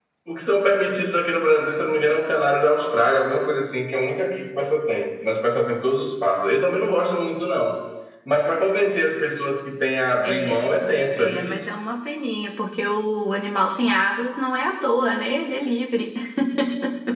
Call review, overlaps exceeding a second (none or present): none